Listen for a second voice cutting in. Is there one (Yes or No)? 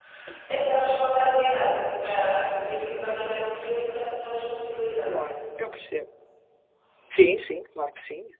No